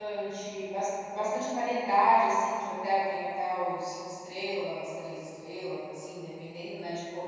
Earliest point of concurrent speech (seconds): none

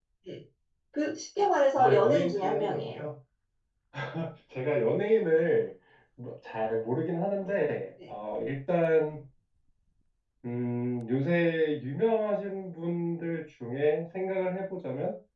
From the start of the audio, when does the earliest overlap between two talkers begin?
1.8 s

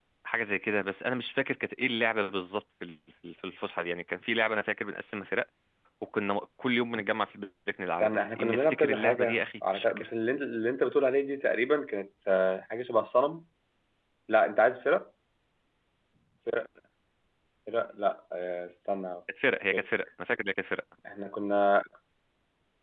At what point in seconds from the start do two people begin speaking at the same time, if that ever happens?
8.0 s

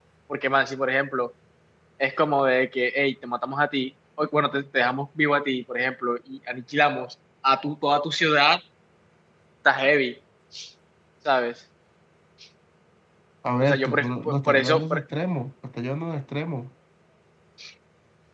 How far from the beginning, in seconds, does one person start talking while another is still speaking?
13.6 s

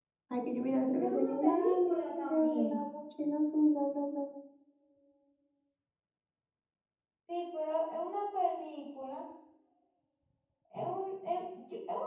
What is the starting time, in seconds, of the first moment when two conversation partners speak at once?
0.9 s

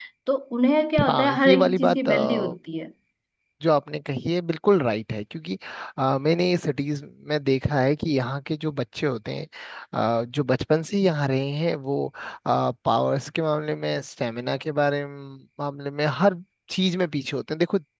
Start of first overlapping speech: 1.1 s

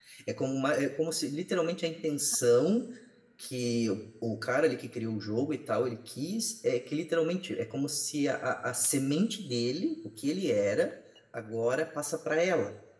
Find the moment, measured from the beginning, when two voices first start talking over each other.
none

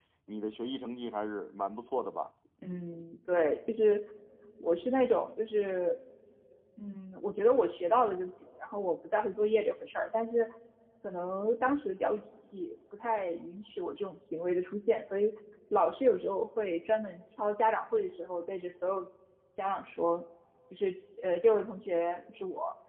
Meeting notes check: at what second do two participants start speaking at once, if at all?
none

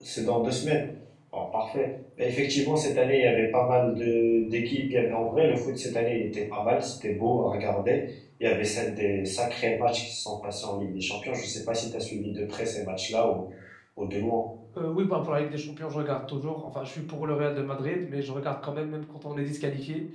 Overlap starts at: none

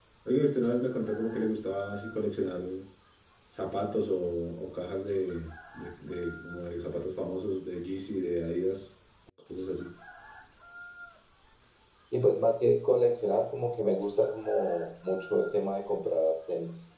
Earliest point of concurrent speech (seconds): none

